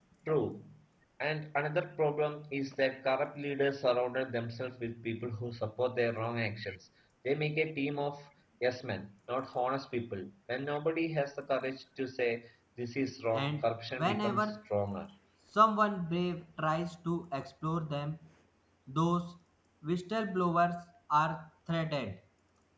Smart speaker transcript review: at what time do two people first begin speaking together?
13 s

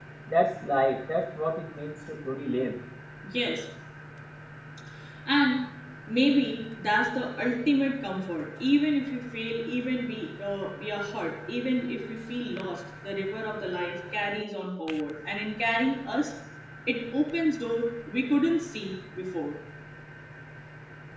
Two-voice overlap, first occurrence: none

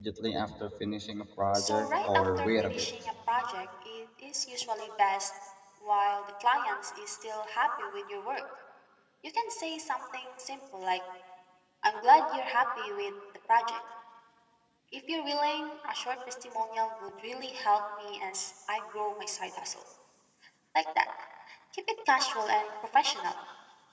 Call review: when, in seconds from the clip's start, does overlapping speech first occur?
2 s

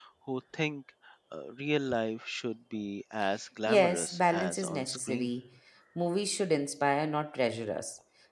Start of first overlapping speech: 4 s

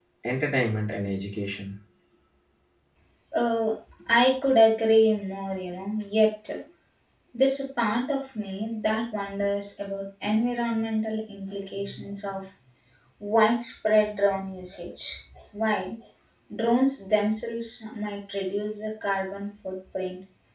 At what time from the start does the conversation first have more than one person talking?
none

